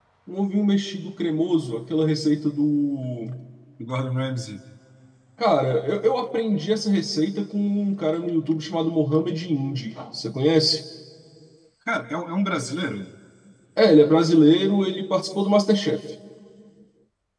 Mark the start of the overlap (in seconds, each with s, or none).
none